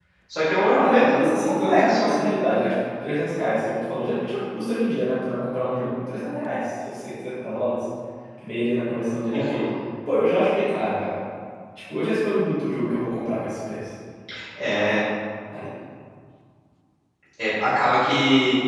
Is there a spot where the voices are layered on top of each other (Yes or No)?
Yes